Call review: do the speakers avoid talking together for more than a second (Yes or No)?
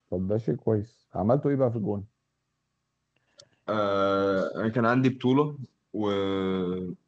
Yes